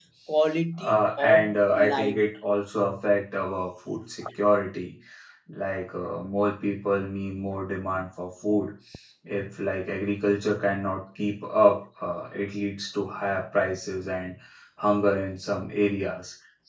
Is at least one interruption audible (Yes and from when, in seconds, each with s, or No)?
Yes, from 0.8 s